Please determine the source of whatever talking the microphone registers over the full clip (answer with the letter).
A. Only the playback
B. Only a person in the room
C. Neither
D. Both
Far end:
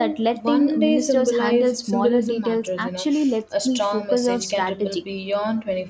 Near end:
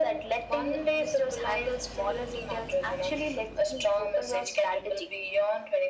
A